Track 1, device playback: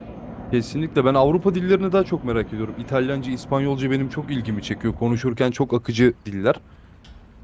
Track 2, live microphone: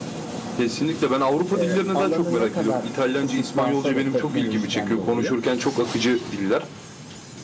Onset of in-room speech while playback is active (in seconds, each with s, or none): 1.5 s